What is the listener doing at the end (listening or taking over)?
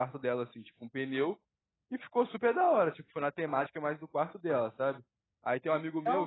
listening